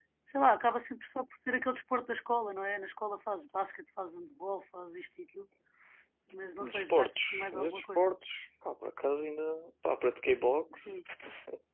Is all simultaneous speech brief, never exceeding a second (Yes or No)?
No